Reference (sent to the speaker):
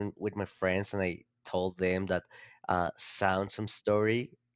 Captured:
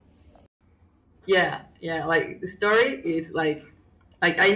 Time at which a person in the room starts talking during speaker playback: 1.2 s

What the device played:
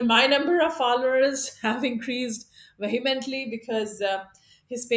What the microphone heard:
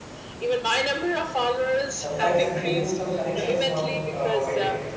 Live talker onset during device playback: 1.9 s

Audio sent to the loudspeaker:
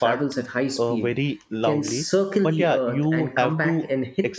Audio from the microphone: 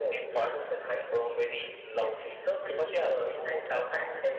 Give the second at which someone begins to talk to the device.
3.3 s

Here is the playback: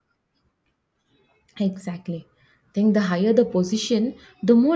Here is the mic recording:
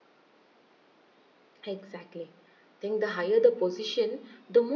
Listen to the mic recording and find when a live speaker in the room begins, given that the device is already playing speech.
none

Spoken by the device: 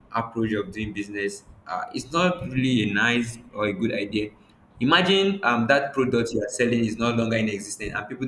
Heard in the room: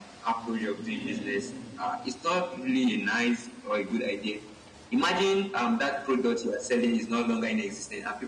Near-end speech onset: 0.3 s

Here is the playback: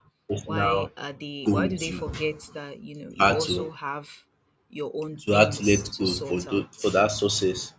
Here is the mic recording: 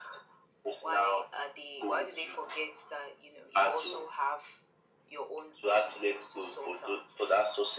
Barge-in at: none

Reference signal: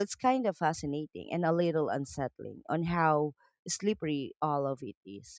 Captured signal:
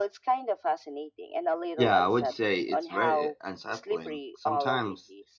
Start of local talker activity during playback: 1.8 s

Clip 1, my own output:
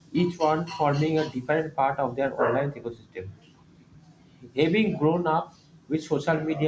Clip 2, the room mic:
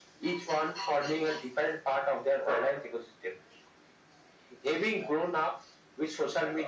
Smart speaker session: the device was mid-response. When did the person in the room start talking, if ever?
none

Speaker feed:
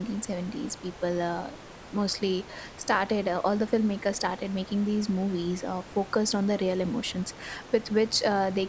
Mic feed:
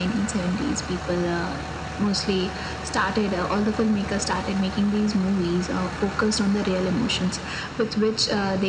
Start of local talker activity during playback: none

